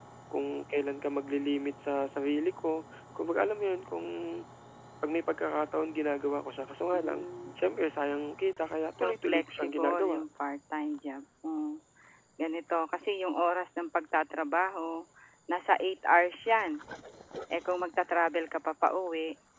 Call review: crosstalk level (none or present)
present